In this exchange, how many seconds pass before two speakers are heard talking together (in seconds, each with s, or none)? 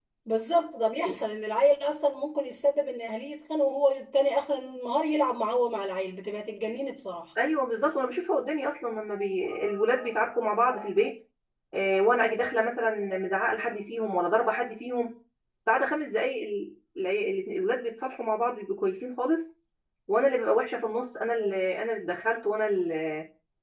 none